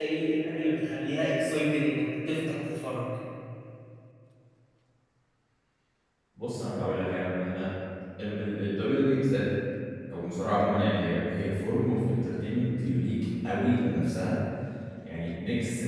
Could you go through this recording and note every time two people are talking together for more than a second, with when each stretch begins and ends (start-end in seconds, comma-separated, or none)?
none